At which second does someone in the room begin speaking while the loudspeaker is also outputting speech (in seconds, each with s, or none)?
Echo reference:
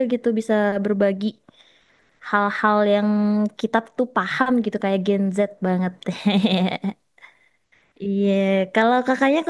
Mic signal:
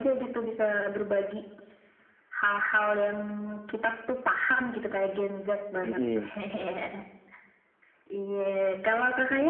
5.8 s